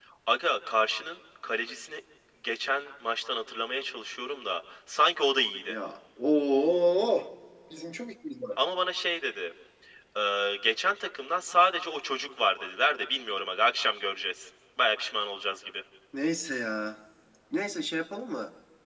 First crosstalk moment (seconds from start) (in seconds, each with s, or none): none